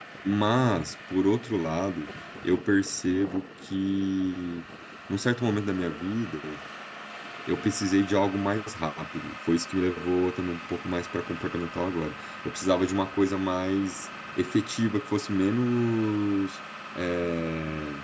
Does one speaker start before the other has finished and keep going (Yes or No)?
No